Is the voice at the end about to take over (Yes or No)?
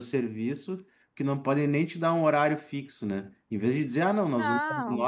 No